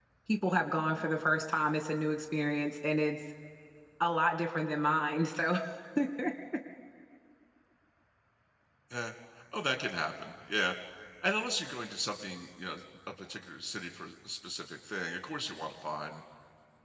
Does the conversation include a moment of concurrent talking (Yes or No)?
No